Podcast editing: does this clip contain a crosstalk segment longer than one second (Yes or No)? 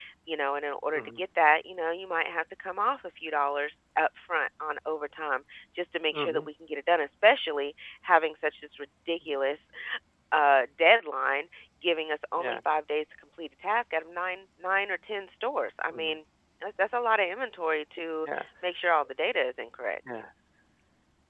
No